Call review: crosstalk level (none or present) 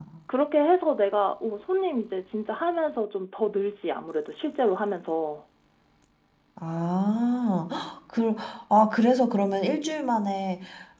none